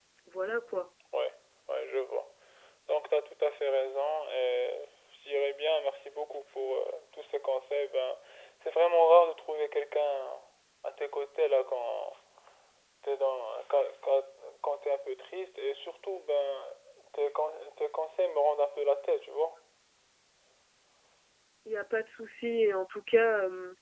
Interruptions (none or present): none